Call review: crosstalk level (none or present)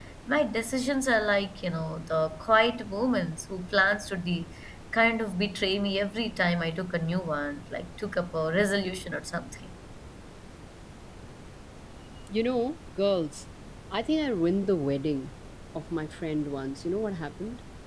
none